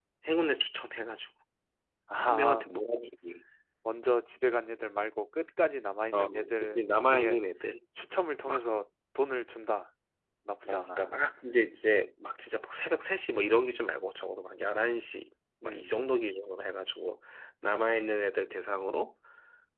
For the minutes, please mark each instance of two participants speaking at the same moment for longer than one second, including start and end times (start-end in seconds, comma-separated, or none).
6.1-7.4